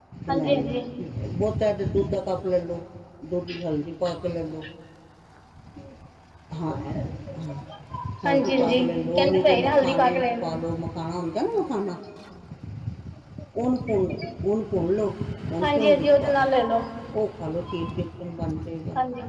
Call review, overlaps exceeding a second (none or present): present